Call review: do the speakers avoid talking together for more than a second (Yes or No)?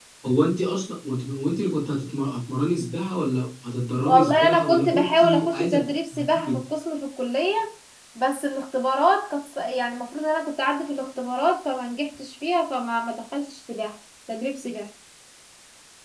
No